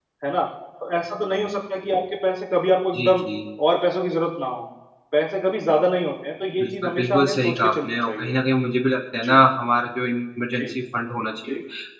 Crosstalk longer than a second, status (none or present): present